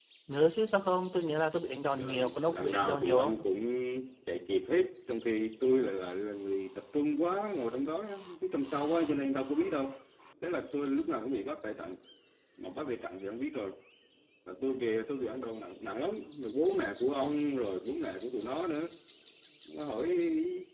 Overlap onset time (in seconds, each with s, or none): 2.0 s